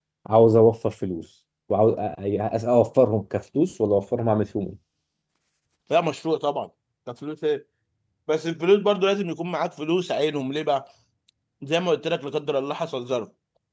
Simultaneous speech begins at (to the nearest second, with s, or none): none